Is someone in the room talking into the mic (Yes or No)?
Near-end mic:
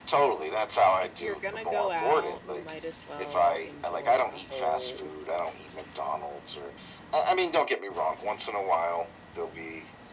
Yes